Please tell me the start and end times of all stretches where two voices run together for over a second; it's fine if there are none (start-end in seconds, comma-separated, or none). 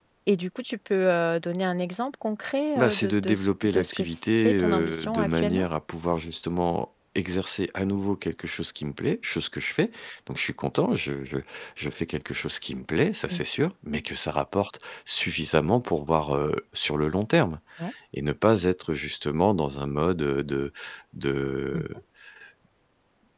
2.8-5.7